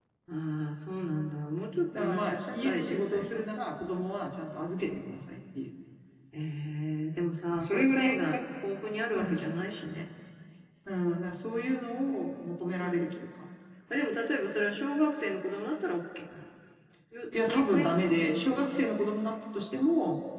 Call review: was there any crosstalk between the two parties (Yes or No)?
Yes